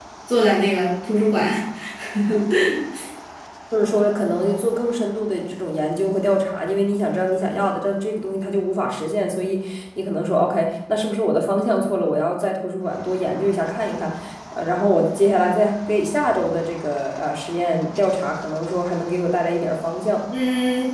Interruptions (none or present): none